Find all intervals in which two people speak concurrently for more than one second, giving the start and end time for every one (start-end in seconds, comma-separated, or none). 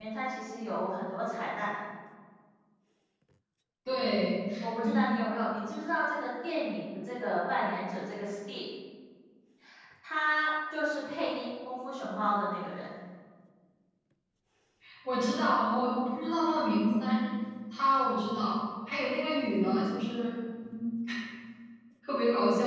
none